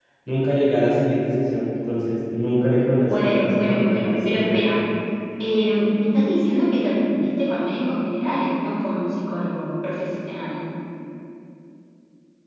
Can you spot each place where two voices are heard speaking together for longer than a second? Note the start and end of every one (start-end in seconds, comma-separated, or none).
3.1-4.6